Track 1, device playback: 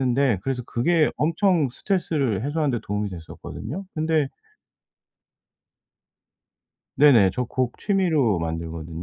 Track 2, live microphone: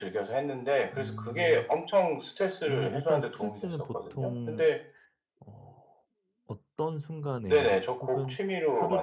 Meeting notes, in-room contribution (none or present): present